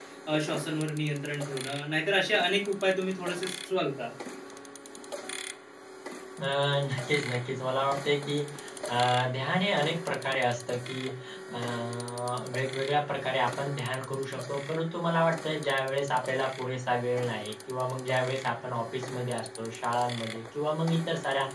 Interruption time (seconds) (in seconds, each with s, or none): none